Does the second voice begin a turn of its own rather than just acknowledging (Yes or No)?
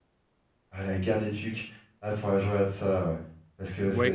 Yes